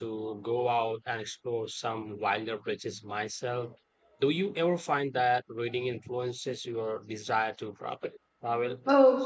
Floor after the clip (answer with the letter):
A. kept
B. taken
B